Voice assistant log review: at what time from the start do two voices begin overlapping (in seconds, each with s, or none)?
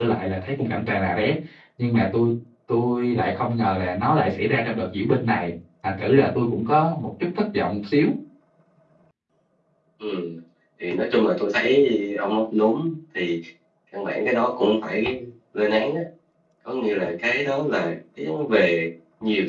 none